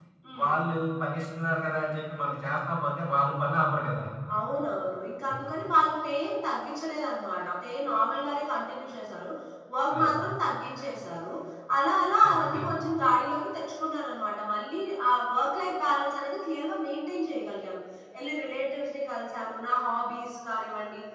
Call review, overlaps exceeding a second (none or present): none